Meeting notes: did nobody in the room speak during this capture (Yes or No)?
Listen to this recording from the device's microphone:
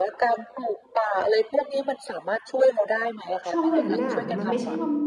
No